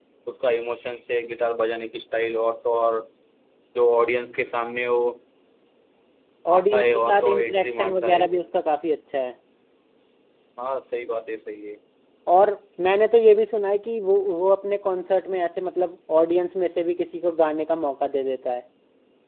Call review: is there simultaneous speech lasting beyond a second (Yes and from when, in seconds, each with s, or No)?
Yes, from 6.5 s